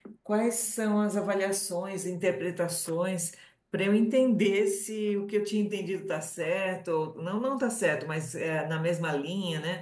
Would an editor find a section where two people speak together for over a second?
No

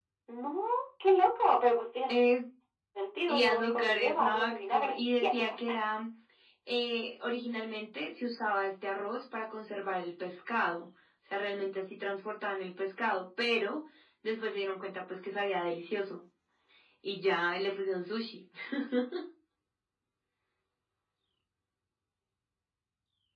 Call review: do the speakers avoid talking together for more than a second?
No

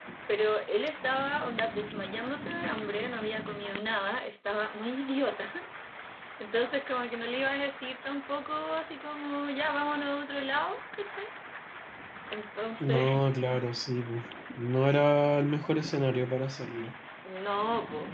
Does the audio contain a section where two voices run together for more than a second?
No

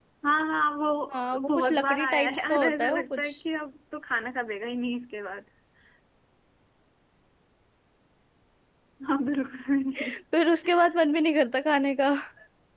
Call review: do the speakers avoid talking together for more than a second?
No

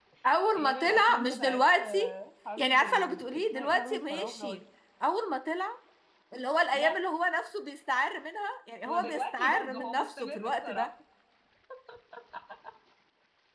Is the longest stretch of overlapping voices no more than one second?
No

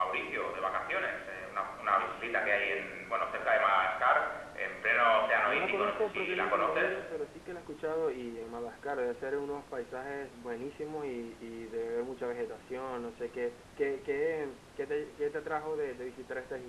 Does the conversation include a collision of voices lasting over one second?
Yes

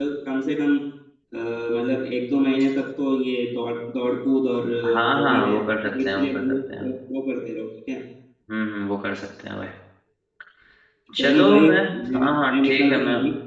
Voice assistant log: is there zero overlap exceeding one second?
No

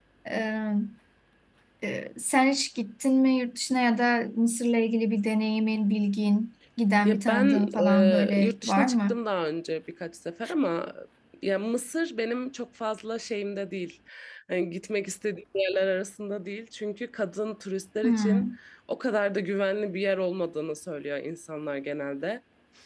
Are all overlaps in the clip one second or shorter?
No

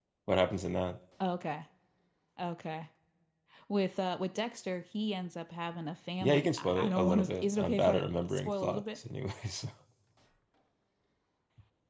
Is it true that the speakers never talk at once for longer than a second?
No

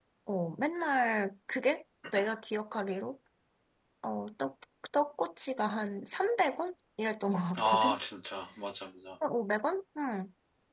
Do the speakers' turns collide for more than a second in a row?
No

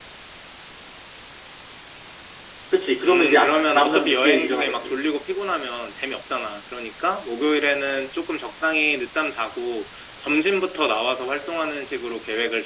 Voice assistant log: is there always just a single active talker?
No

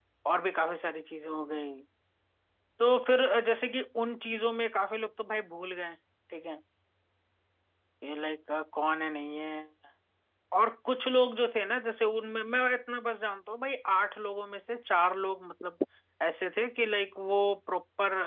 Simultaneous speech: No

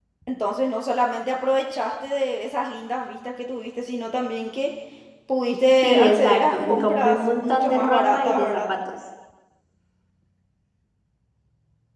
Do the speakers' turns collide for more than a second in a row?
Yes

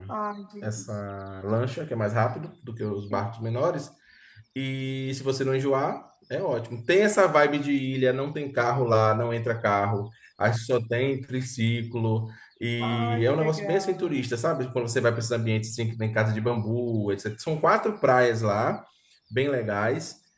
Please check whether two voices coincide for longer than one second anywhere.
Yes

